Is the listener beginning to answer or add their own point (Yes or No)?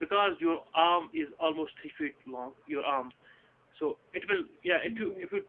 No